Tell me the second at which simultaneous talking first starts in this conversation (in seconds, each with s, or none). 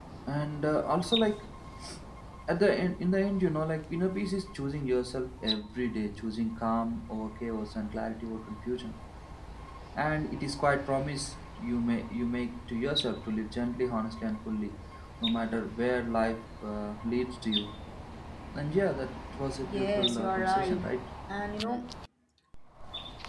19.6 s